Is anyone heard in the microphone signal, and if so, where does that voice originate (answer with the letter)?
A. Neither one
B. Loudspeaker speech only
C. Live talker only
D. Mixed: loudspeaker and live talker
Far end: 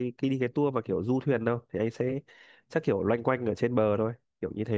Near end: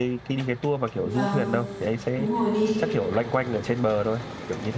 D